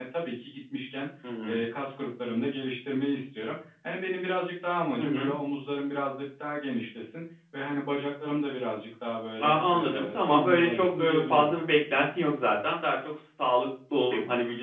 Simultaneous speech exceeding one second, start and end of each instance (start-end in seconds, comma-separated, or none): 9.4-11.5